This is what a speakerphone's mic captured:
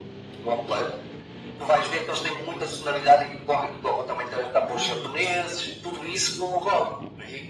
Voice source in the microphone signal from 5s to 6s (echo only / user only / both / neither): echo only